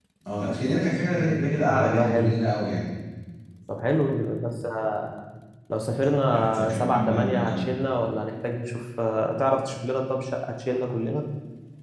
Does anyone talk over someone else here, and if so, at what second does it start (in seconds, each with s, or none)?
1.1 s